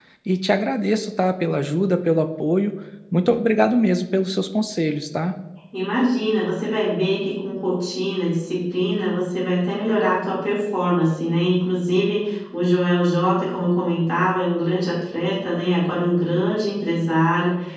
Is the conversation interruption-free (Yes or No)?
Yes